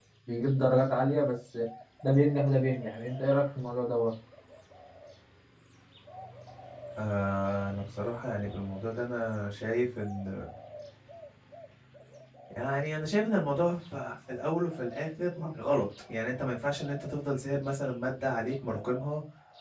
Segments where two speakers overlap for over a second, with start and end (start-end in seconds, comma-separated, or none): none